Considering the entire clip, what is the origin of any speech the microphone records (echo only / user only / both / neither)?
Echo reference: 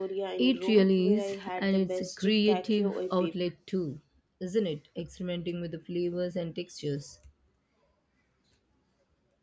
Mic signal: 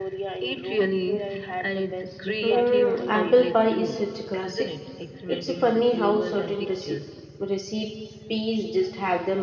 both